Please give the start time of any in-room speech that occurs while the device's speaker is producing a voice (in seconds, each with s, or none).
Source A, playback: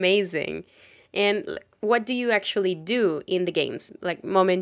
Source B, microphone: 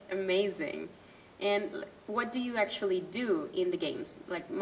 none